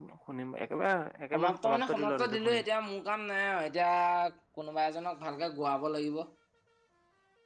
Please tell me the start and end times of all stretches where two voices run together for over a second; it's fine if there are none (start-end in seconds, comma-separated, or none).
1.3-2.6